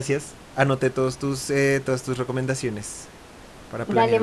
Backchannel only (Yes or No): No